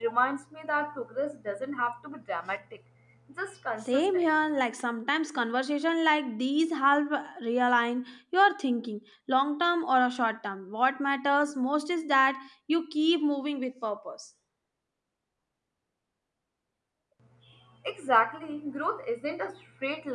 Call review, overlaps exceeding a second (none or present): none